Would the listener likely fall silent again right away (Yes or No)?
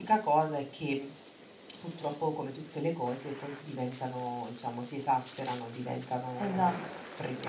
No